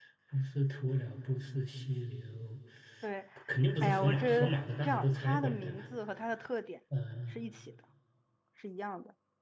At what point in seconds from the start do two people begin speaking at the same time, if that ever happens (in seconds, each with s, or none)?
3.8 s